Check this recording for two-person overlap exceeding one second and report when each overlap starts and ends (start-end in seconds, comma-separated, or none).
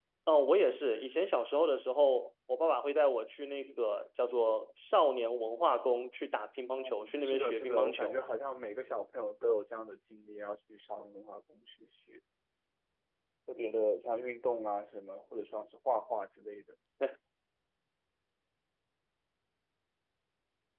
6.8-8.2